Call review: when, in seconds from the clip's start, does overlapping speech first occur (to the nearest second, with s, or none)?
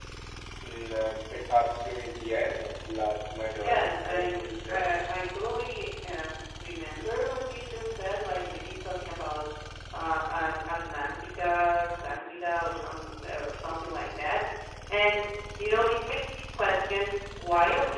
4 s